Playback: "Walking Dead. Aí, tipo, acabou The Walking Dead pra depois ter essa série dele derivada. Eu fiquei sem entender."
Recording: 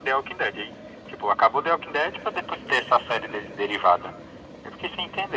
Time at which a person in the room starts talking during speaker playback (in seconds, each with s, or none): none